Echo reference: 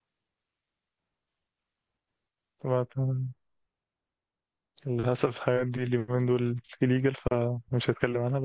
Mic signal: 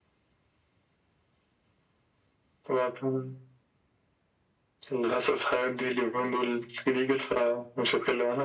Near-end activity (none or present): none